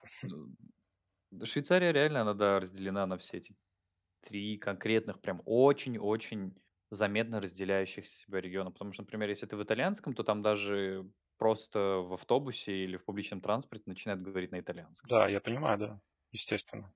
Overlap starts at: none

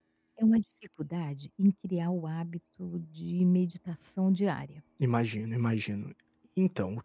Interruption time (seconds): none

